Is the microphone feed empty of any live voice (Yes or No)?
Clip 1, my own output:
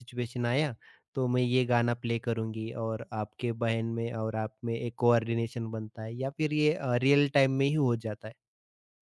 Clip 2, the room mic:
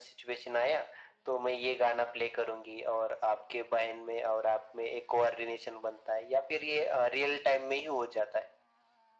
Yes